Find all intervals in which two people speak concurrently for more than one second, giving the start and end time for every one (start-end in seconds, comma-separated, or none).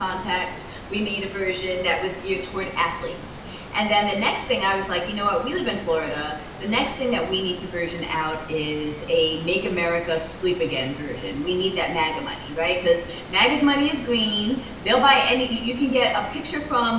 none